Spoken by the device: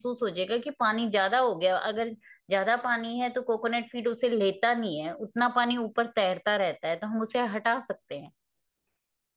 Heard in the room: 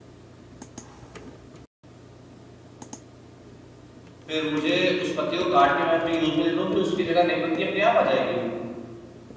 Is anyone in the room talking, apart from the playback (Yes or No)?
Yes